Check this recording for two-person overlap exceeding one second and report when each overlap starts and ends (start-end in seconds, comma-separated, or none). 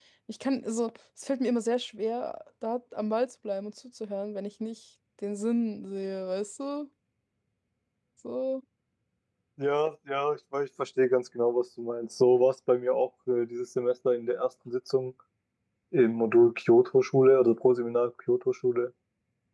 none